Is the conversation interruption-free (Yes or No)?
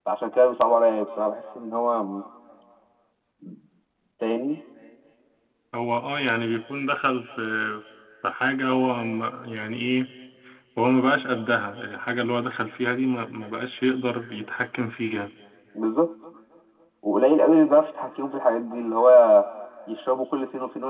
Yes